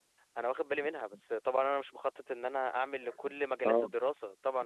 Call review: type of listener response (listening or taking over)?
listening